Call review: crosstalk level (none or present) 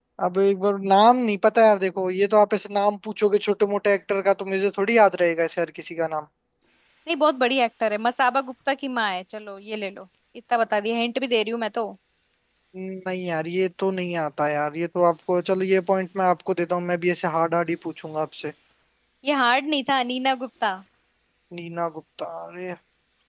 none